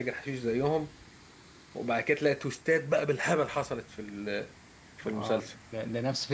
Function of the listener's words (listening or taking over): taking over